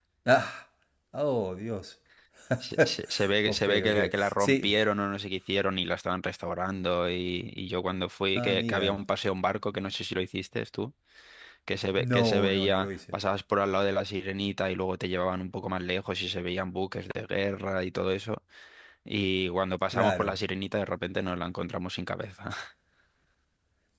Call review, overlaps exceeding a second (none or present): present